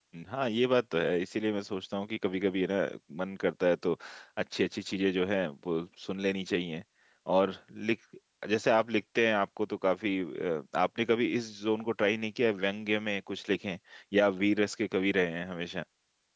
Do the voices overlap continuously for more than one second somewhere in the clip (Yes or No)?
No